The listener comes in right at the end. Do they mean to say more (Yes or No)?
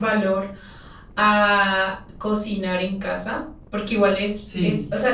No